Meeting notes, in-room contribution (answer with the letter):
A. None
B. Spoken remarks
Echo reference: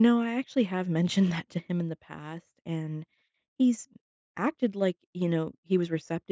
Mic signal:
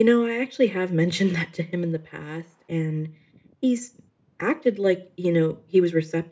A